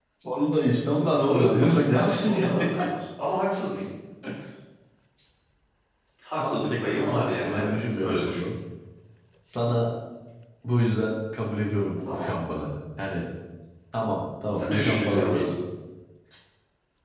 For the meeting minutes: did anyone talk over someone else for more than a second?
Yes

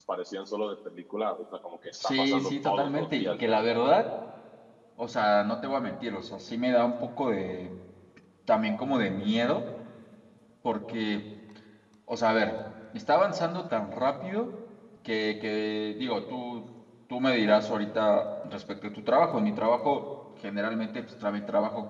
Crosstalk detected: Yes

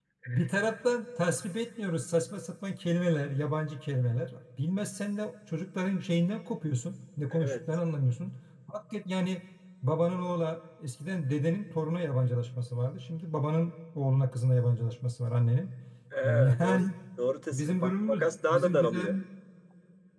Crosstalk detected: Yes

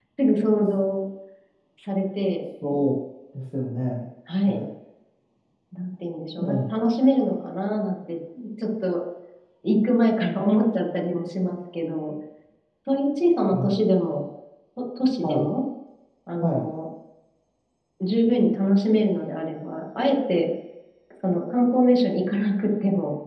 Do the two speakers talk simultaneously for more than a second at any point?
No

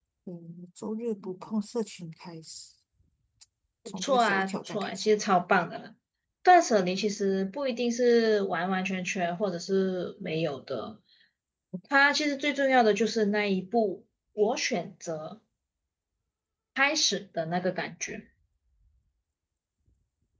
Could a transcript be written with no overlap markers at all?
No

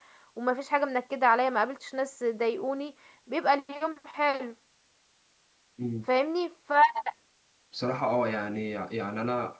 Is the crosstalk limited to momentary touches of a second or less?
Yes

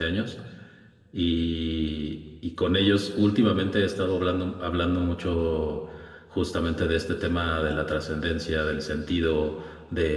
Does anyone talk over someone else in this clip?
No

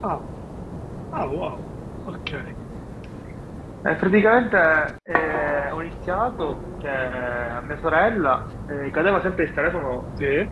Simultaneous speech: No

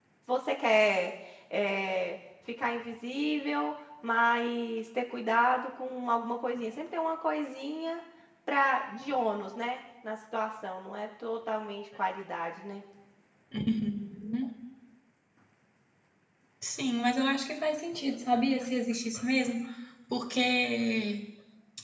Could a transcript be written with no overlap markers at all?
Yes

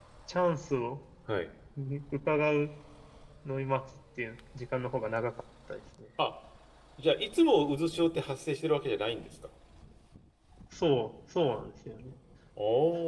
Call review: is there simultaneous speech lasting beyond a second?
No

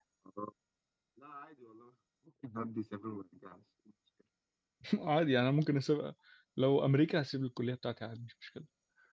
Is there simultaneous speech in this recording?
No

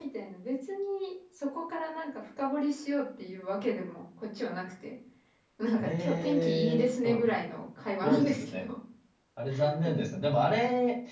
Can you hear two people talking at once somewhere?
Yes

